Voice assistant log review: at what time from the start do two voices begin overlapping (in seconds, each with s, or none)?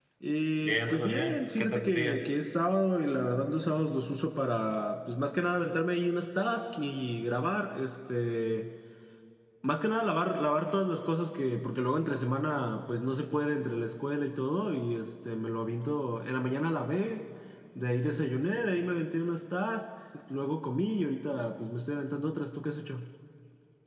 0.6 s